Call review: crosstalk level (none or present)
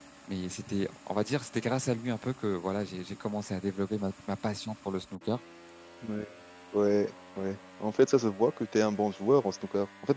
none